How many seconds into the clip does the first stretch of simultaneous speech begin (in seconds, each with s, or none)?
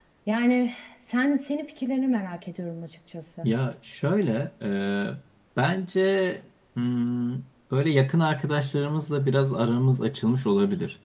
none